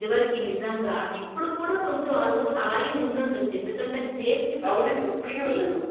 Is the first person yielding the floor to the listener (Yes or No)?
Yes